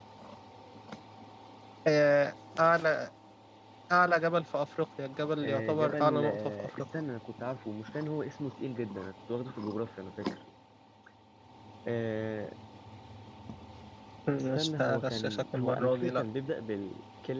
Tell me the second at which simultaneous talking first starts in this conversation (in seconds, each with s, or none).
5.4 s